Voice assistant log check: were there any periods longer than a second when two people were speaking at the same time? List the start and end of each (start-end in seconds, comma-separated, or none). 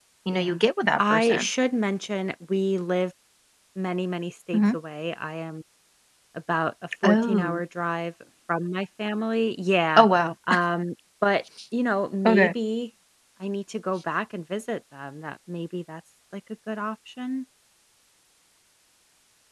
none